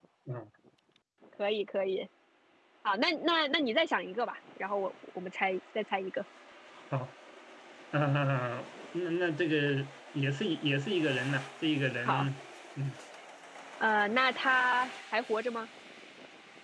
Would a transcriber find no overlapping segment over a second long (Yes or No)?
Yes